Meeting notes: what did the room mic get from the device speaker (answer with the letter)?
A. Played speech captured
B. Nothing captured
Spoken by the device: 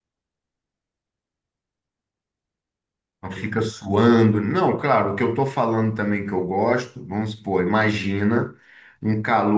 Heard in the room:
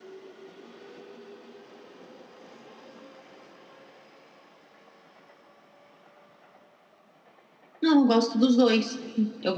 B